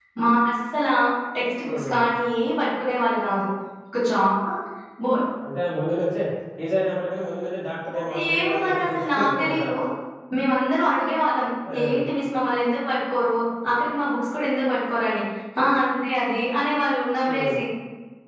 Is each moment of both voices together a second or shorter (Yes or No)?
No